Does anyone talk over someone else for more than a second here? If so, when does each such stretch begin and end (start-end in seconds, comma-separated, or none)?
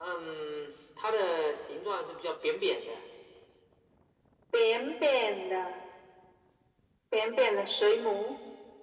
none